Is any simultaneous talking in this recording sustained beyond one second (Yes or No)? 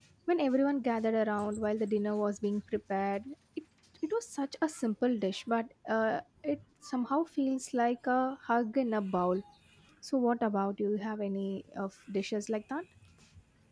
No